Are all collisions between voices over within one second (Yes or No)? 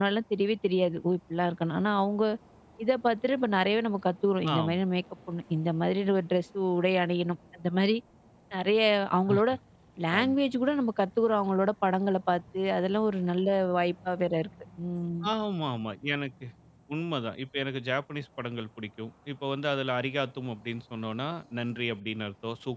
Yes